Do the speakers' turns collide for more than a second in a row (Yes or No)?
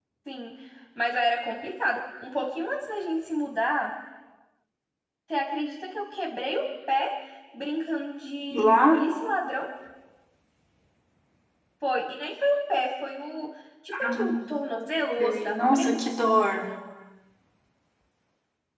Yes